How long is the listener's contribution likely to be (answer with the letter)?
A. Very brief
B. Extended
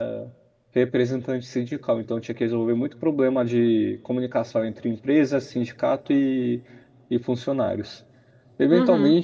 A